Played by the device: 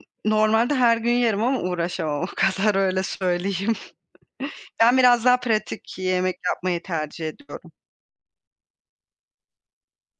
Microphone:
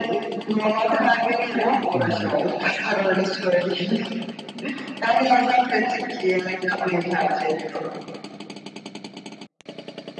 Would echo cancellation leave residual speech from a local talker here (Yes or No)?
Yes